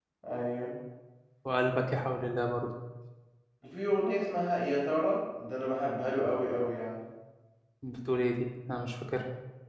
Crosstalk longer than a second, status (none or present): none